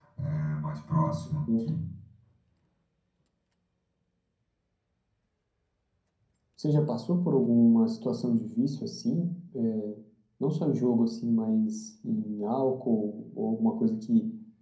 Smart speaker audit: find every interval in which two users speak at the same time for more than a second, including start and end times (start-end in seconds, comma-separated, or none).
none